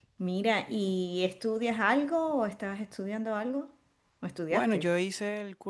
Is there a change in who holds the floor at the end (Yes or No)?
Yes